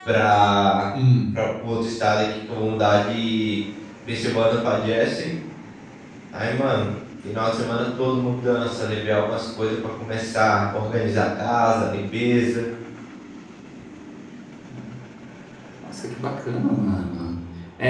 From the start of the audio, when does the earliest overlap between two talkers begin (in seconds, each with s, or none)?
none